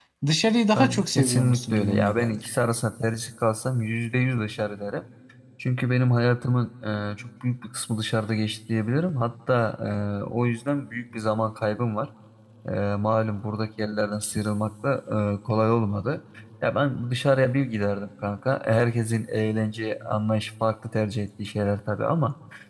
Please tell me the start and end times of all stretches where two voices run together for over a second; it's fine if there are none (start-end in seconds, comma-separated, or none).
0.8-2.4